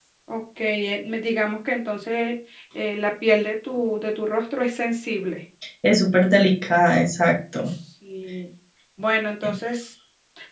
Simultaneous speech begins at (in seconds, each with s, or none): none